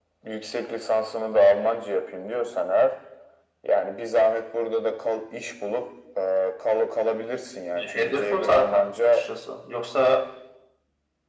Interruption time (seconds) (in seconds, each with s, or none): 7.7 s